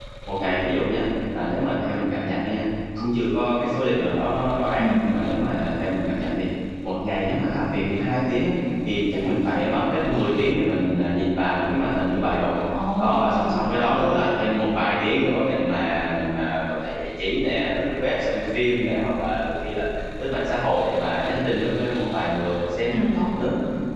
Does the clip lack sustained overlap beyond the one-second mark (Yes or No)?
No